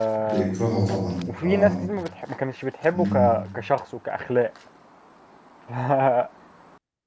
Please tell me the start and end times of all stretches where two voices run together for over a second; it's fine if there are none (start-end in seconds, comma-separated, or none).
none